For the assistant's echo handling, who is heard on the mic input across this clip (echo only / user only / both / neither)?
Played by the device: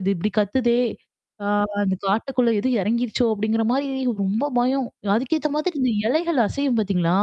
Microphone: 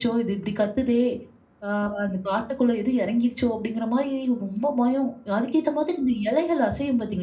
echo only